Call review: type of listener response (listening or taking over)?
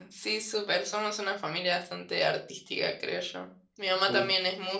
listening